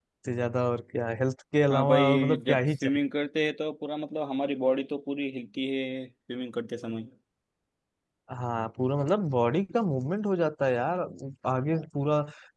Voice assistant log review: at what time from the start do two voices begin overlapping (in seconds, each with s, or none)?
1.7 s